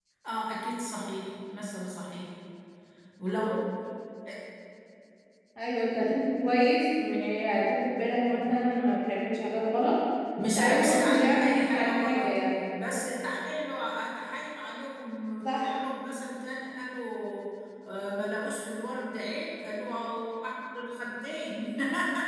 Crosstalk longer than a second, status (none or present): present